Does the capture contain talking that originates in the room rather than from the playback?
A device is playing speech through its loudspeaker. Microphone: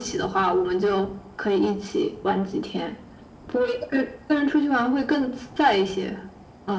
No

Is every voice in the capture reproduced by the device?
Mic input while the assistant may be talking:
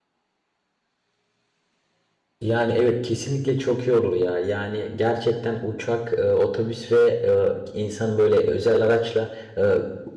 No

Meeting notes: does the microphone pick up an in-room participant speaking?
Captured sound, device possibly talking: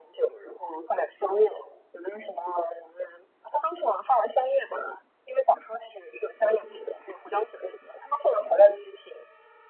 No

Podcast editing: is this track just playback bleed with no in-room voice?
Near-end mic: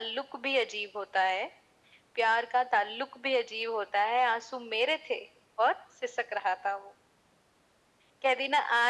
Yes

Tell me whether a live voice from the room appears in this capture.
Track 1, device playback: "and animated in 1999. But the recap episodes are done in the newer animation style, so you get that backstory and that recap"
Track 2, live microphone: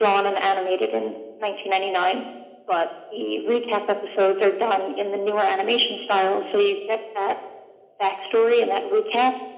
No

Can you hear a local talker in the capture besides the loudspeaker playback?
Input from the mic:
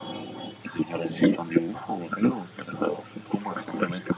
No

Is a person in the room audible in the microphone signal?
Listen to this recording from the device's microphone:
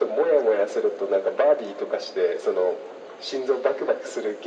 No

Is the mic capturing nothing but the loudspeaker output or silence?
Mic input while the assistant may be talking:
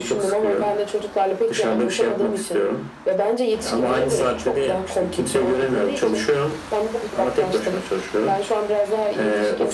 Yes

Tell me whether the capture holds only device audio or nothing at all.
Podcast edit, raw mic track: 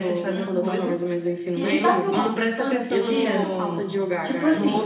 No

